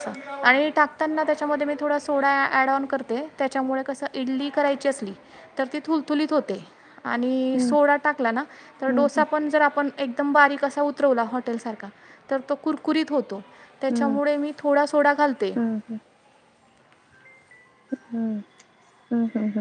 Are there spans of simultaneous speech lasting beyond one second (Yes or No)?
No